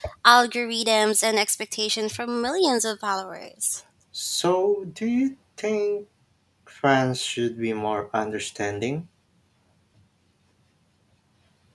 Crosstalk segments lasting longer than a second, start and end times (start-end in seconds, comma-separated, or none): none